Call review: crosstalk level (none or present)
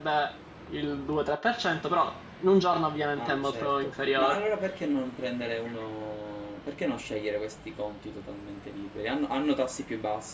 present